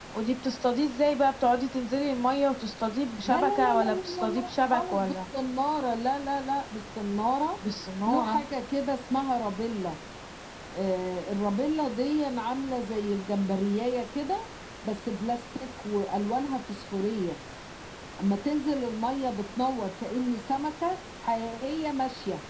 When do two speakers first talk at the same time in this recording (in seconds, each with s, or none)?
3.2 s